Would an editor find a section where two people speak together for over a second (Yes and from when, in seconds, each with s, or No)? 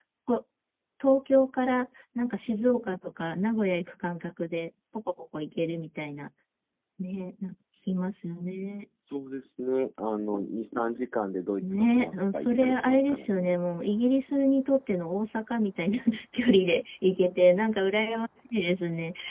Yes, from 11.6 s